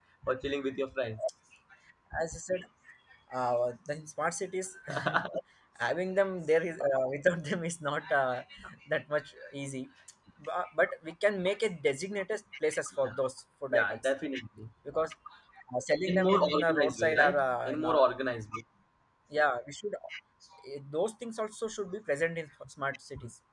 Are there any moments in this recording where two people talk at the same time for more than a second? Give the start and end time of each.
16.1-18.0

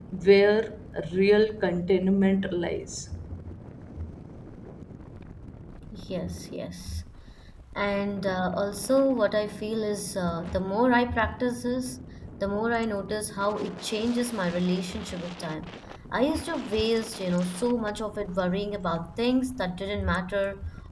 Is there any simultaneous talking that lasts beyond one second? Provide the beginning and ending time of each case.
none

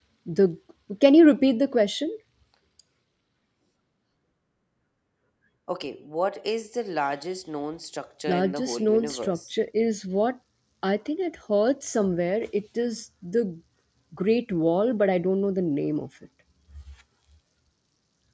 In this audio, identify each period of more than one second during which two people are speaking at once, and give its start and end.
8.3-9.5

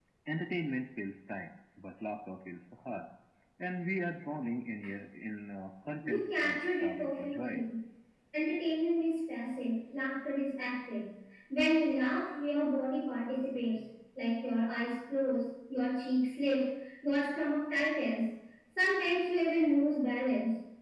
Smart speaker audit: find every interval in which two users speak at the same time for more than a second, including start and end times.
6.0-7.6

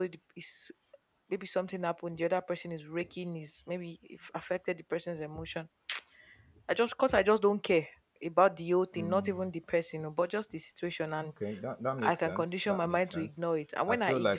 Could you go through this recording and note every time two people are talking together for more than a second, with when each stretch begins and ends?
12.0-13.3

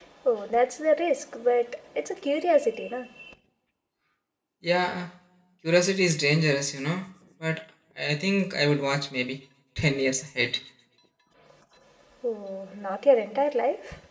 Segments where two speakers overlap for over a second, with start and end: none

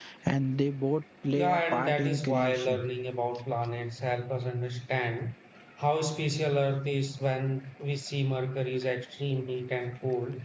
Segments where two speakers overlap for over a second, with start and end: 1.3-2.8

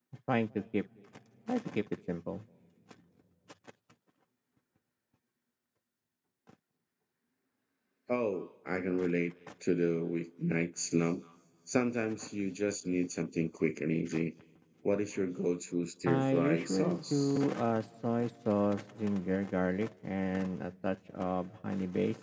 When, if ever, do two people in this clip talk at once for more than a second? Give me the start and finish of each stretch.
16.1-17.4

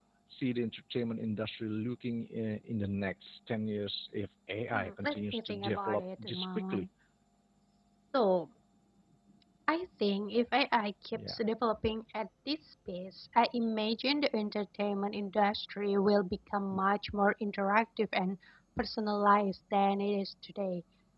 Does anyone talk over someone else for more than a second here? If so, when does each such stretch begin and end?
4.7-6.8

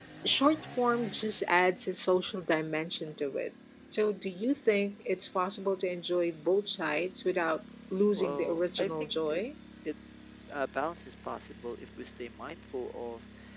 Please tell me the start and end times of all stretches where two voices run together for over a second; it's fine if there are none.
8.2-9.4

